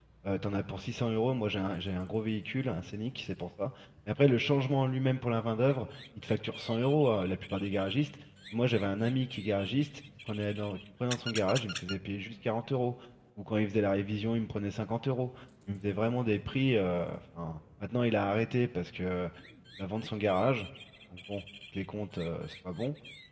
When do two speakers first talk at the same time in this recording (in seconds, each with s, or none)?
none